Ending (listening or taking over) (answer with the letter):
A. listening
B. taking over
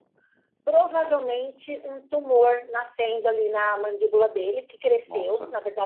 A